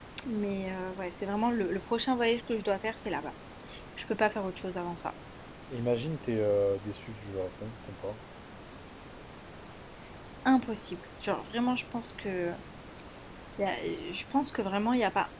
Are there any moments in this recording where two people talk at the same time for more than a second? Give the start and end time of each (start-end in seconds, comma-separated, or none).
none